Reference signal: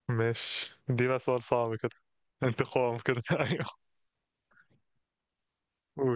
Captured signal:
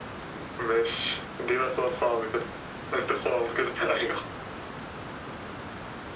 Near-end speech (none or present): none